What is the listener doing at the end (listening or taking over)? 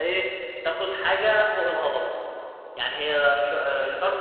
listening